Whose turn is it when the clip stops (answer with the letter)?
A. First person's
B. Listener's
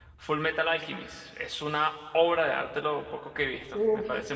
B